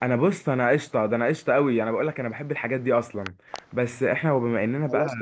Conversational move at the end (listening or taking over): taking over